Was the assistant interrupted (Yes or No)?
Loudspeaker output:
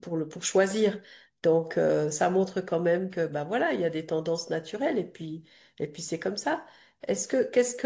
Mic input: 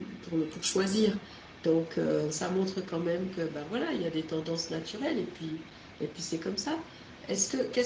No